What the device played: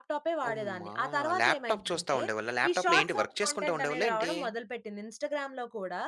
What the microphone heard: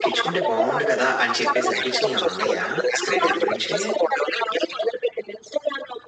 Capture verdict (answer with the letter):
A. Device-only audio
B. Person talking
B